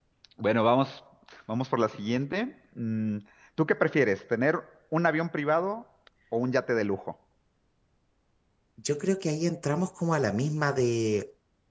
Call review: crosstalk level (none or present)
none